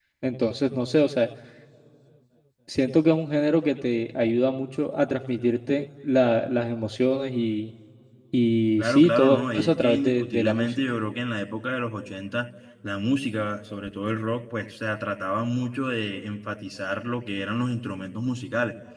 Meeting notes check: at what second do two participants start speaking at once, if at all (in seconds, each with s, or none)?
8.8 s